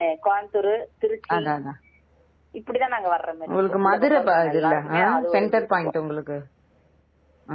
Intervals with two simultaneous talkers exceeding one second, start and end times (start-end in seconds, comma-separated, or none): 3.5-5.9